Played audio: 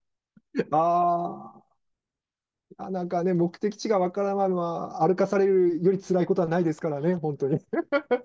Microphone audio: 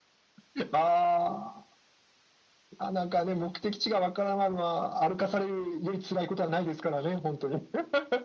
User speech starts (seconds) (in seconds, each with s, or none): none